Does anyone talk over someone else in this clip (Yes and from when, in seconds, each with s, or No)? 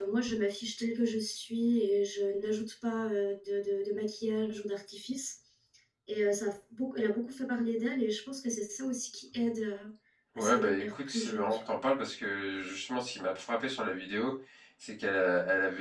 Yes, from 10.3 s